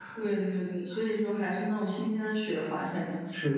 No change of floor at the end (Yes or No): No